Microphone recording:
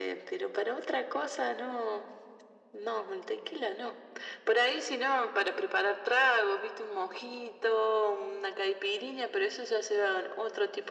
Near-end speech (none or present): none